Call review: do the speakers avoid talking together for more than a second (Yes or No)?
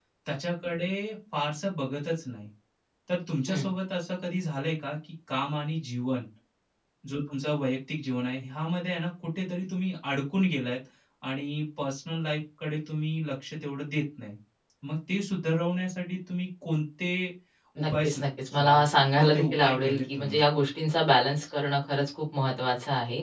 No